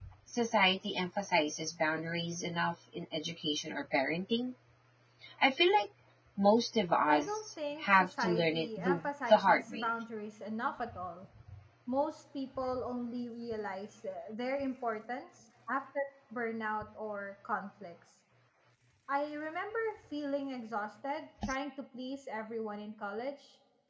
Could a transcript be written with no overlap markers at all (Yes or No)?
No